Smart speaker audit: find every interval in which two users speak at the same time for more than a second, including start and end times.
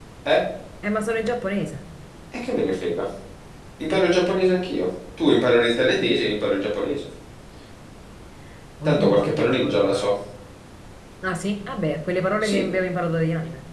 8.9-10.1

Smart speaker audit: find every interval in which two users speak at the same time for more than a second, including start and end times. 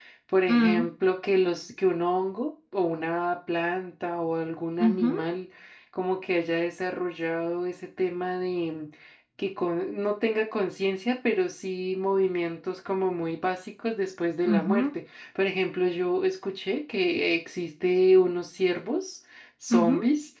none

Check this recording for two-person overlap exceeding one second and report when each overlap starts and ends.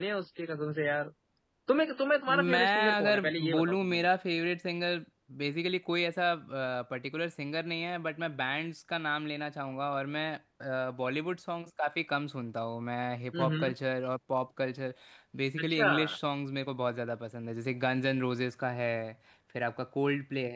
2.3-4.1

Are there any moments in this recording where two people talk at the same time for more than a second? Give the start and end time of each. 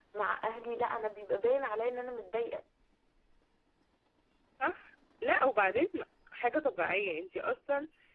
none

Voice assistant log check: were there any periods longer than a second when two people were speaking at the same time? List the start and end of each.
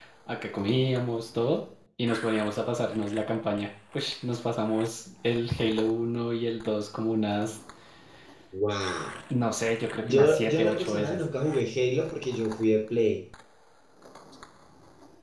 10.0-11.2

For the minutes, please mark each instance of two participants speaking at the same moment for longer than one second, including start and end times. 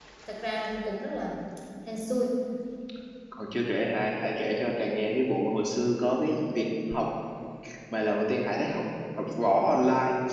none

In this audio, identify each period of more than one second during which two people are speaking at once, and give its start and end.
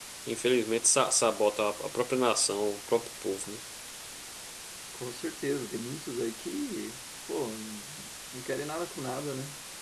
none

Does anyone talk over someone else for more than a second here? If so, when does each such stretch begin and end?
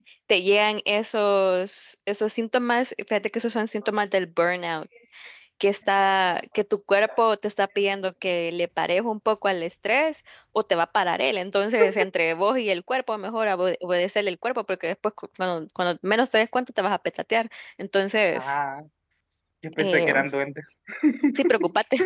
none

